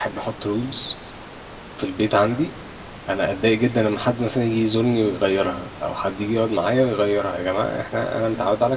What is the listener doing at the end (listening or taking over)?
listening